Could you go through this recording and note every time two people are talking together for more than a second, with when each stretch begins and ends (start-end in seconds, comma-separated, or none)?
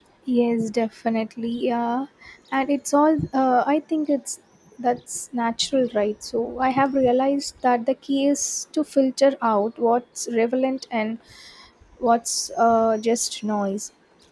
none